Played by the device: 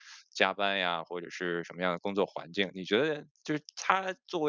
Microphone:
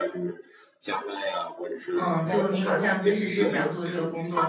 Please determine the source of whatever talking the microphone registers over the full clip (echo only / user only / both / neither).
both